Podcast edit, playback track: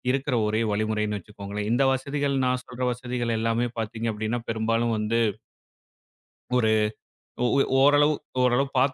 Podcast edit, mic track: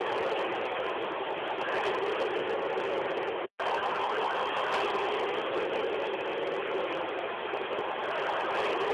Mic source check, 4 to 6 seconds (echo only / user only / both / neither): neither